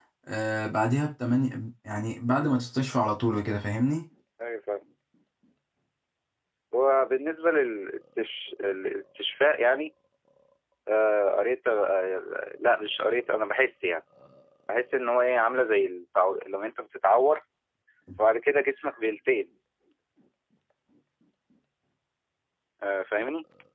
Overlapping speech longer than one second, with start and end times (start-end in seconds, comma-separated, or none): none